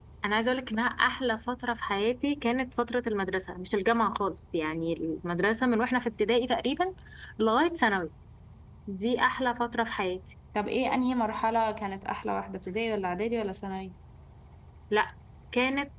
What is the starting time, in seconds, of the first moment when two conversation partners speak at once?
none

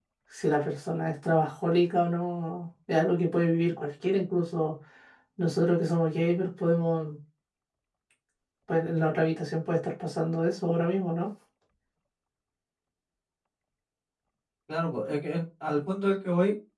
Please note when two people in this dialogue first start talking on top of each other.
none

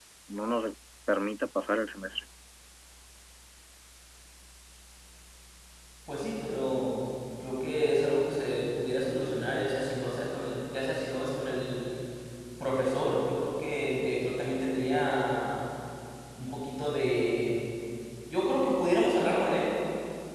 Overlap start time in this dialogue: none

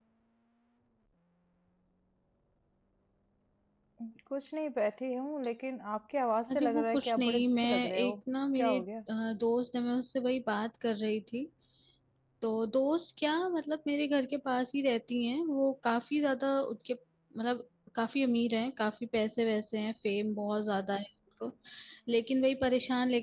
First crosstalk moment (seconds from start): 6.5 s

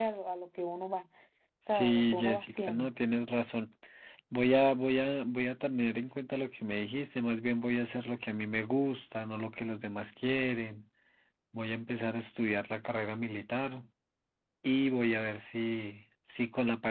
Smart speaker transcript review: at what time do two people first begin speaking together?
1.7 s

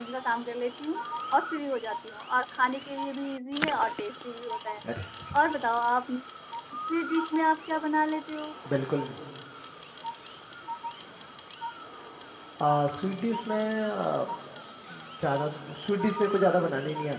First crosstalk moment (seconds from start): none

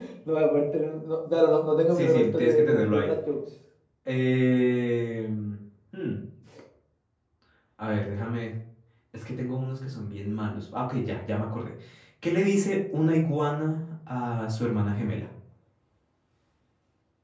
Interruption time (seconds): 1.9 s

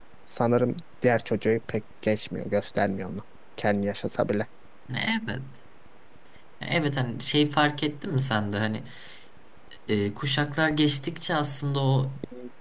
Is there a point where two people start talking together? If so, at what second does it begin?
none

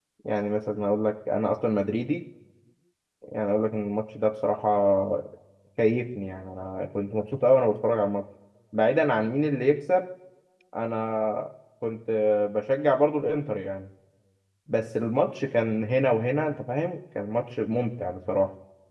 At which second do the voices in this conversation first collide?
none

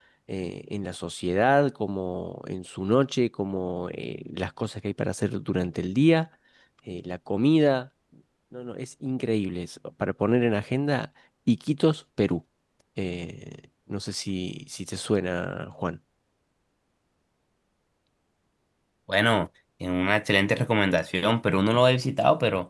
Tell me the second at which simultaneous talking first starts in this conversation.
none

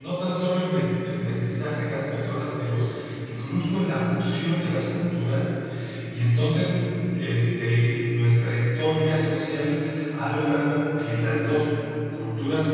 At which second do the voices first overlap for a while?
none

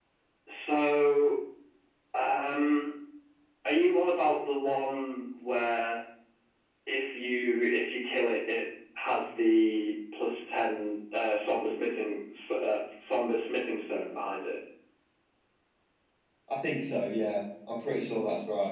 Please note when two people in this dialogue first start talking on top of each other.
none

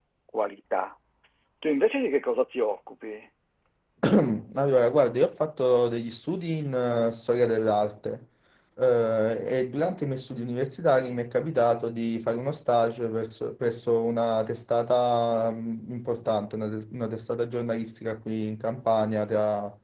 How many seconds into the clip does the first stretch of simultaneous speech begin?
none

